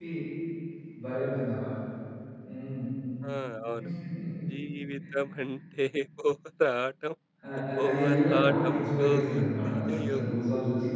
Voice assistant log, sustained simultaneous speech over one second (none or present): present